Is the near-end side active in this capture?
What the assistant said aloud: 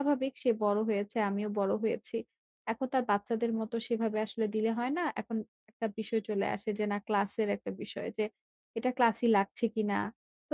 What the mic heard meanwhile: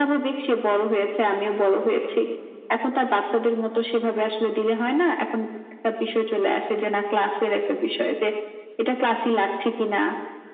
No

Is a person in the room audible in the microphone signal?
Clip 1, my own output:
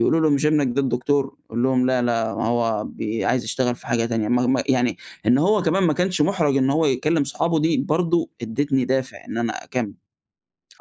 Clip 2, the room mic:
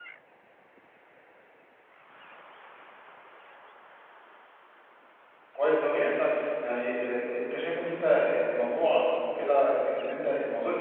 Yes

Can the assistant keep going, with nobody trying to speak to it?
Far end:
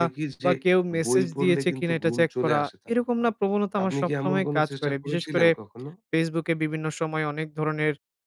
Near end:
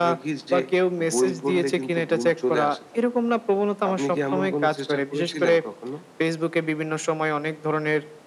Yes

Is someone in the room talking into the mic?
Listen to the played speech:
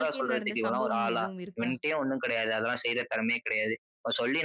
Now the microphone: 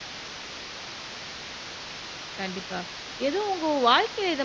Yes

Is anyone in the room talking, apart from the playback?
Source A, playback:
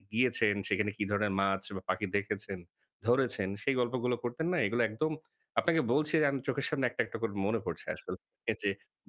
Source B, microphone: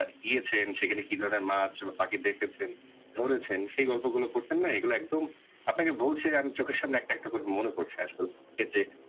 No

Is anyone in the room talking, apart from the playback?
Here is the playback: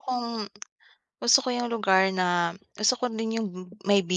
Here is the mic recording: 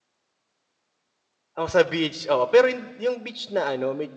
Yes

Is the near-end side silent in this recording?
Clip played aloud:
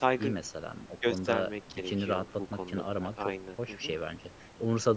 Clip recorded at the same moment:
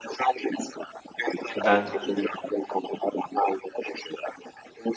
No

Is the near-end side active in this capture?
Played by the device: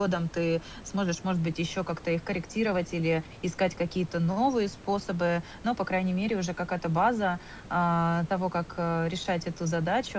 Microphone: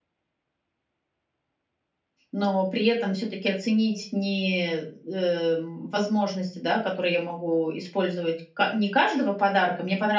Yes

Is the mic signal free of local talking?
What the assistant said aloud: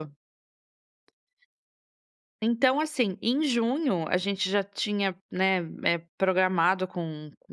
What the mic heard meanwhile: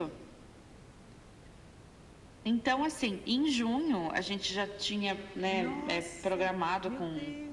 No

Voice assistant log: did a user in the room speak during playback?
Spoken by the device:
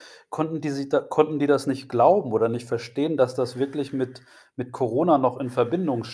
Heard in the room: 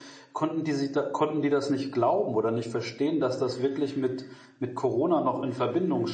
No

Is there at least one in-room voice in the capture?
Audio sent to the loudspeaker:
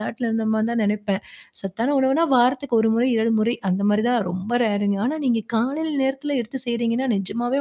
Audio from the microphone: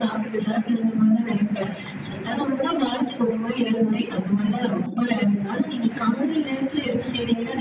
No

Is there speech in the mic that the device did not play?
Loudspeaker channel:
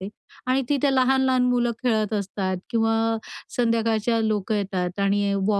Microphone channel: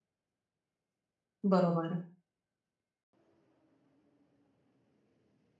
Yes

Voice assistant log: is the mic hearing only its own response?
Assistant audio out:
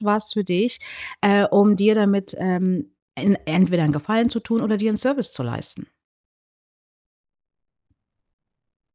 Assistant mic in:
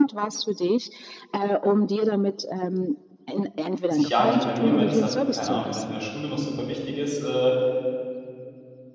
No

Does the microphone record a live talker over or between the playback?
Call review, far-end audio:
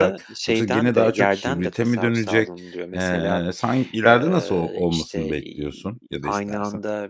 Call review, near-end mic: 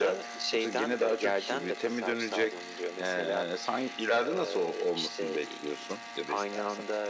No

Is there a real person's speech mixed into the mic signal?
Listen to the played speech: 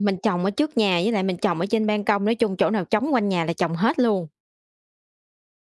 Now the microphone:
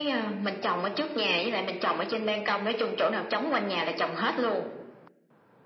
No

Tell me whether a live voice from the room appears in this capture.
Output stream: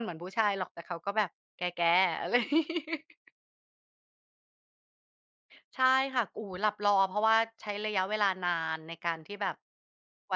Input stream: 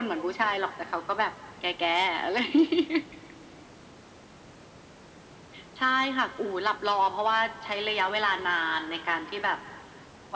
No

